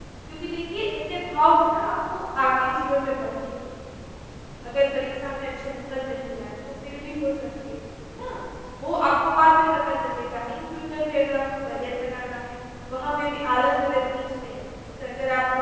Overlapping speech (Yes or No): No